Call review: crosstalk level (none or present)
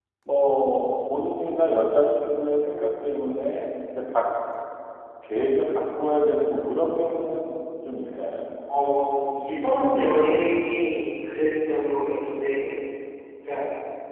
none